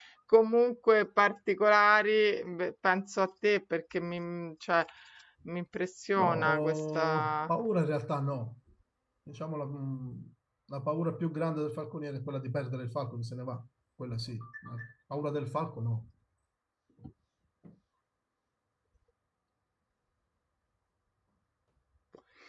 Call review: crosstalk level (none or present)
present